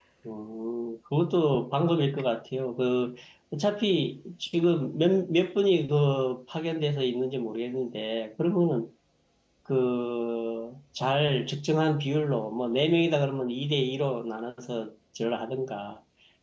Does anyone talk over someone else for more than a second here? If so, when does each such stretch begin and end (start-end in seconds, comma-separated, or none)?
none